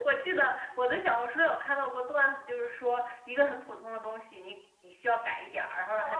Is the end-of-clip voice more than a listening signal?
Yes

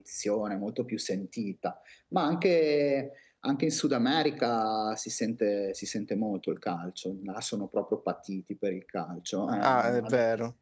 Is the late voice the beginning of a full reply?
Yes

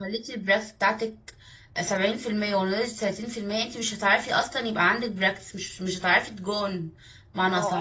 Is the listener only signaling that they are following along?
No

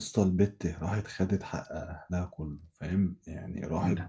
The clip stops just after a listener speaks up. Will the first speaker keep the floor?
Yes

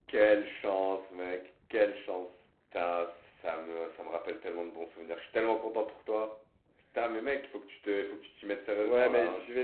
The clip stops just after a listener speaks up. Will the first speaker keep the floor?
No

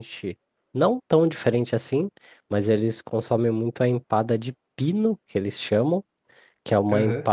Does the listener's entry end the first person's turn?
No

